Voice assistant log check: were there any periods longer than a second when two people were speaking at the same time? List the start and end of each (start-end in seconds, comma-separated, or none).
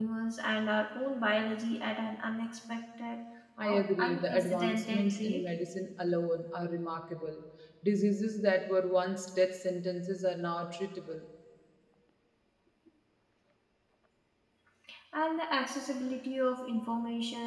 3.6-5.4